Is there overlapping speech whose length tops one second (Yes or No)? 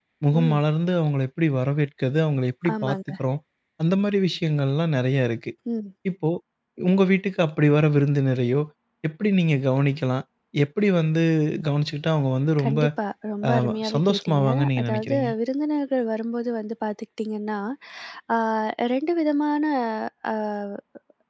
Yes